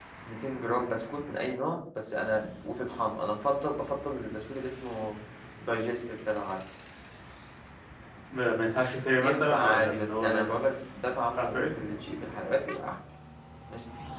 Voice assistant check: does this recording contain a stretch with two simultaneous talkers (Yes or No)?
Yes